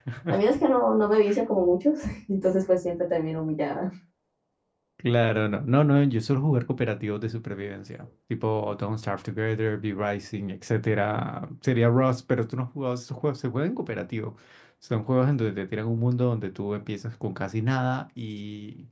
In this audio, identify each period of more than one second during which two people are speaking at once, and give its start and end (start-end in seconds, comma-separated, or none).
none